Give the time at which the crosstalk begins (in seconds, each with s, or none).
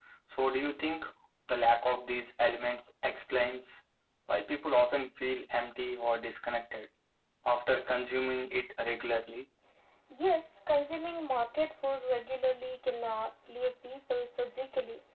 none